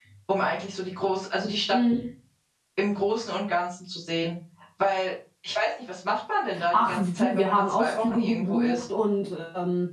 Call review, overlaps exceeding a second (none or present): present